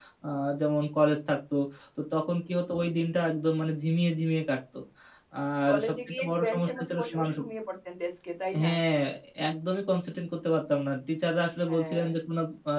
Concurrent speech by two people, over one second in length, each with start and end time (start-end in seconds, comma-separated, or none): 5.7-7.4